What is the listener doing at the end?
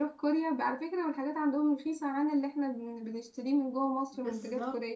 taking over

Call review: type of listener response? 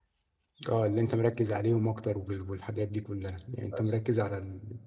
listening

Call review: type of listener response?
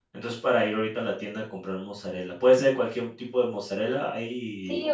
taking over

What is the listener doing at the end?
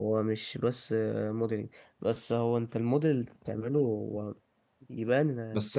taking over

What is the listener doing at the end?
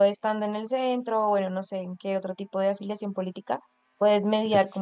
listening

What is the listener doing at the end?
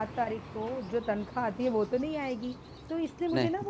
listening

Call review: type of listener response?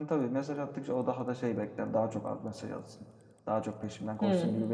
listening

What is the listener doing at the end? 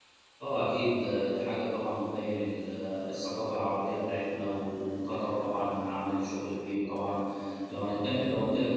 listening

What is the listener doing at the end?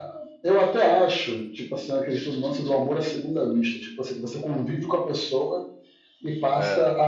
listening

